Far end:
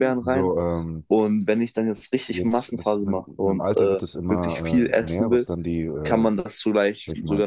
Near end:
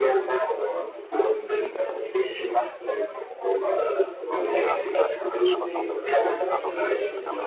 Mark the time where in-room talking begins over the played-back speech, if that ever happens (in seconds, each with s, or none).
4.5 s